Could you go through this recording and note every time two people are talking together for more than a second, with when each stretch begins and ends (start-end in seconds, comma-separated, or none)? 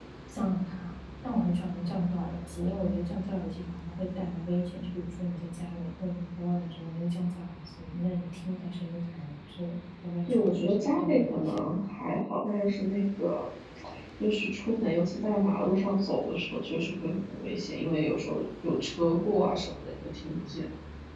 10.2-11.8